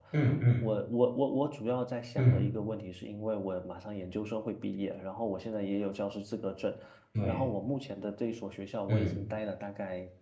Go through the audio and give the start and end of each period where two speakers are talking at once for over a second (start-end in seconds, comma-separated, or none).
none